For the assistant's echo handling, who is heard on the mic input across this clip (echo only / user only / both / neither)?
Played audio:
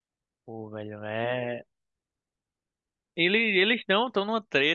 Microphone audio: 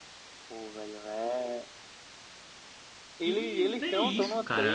both